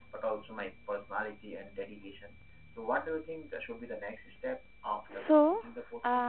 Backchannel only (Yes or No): No